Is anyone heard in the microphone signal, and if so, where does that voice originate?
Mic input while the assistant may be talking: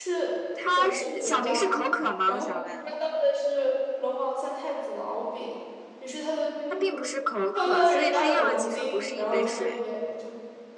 both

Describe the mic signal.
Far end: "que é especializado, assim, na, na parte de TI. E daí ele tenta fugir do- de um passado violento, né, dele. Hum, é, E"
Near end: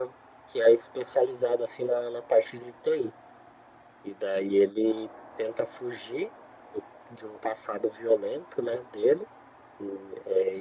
echo only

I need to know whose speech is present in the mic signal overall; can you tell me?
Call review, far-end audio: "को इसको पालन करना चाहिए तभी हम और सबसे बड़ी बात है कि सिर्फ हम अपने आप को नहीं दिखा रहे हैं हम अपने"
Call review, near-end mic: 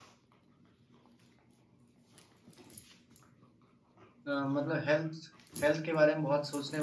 user only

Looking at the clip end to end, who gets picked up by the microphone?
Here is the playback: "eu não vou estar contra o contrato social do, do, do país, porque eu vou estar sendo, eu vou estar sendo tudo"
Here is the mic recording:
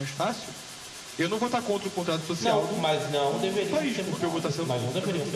both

